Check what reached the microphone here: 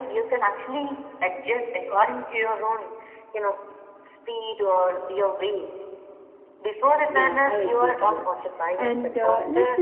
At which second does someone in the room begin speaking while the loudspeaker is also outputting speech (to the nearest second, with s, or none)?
7 s